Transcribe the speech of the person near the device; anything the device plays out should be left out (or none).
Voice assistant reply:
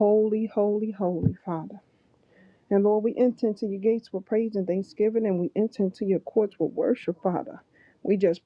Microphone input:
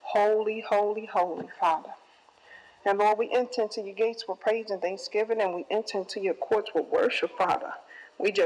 none